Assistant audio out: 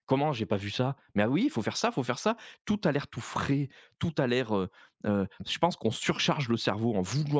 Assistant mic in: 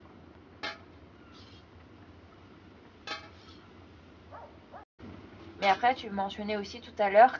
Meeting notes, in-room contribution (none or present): present